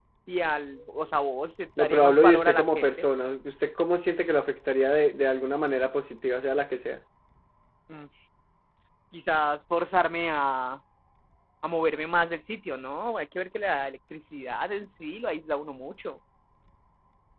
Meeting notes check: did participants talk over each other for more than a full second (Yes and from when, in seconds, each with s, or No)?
Yes, from 1.8 s